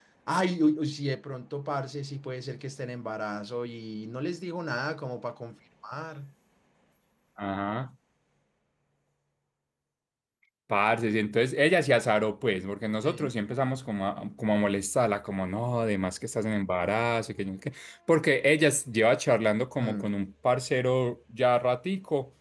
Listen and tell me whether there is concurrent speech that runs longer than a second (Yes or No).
No